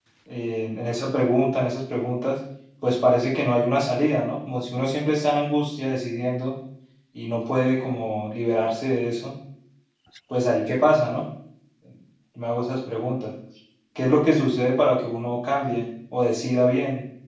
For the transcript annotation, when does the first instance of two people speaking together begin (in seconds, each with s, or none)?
none